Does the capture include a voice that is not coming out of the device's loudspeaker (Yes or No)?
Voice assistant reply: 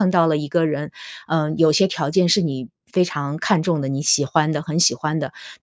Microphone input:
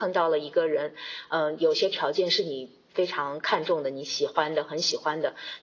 No